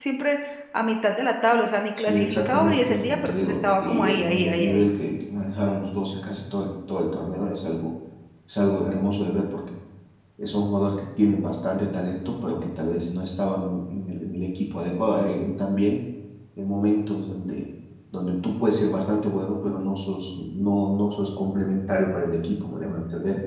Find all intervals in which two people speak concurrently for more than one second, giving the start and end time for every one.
2.0-4.9

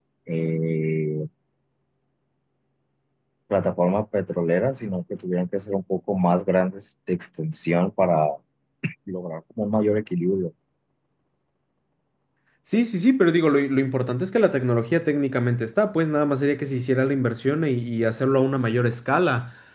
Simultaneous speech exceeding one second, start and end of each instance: none

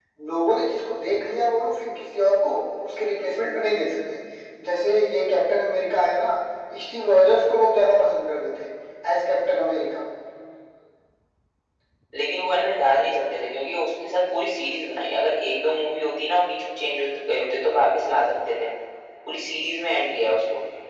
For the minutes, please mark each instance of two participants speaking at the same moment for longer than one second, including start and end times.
none

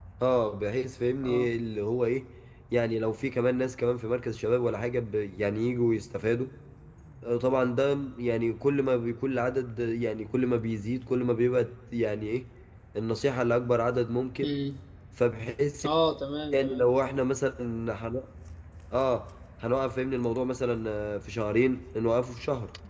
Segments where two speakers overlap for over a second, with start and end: none

